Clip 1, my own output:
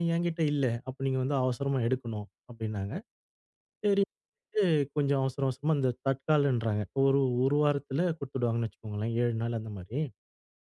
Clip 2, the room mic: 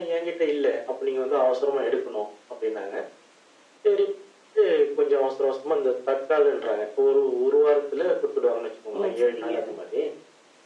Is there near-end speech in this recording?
Yes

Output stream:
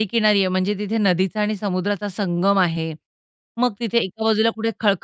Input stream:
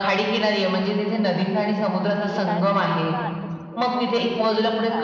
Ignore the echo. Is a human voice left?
Yes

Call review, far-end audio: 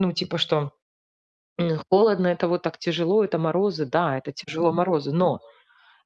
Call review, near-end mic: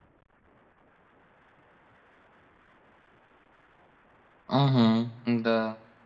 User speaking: Yes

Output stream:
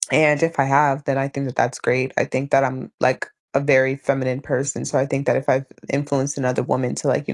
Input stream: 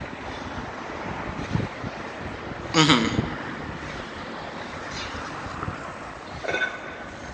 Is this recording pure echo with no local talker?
No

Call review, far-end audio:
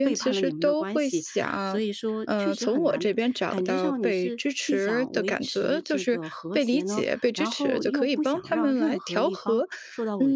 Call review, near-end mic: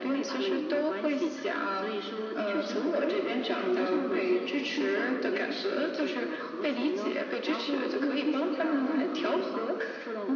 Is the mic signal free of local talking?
No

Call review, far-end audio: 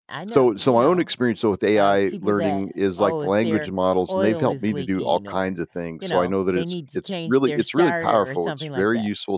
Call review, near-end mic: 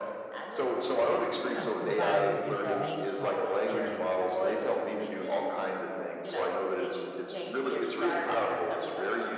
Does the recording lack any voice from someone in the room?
No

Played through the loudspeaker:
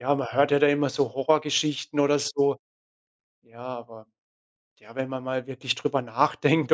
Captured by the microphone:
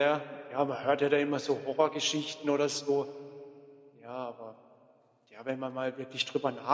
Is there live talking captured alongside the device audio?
No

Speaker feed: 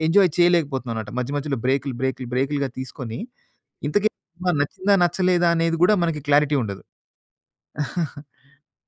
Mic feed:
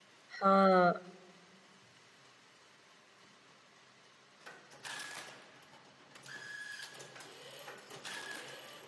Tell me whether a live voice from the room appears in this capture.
Yes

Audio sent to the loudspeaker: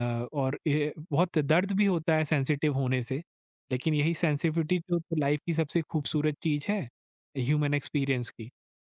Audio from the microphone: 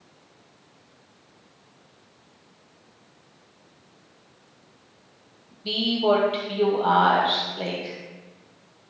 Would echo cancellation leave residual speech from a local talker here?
Yes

